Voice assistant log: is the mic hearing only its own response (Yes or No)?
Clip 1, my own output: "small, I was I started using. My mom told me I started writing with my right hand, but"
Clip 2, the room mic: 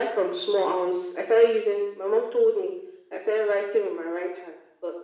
Yes